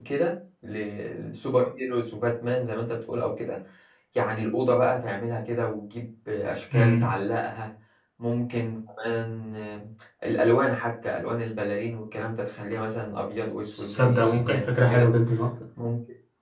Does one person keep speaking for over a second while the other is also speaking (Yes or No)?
Yes